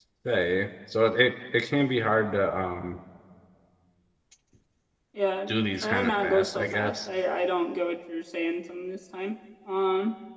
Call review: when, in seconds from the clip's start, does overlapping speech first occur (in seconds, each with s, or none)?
5.5 s